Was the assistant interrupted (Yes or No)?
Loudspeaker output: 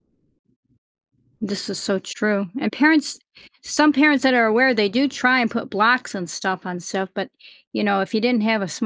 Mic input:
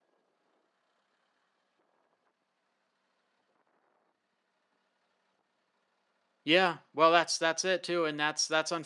Yes